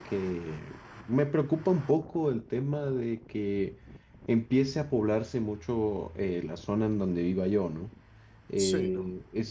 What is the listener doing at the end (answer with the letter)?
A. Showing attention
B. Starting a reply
A